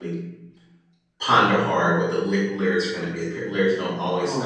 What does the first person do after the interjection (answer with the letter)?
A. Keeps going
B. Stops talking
A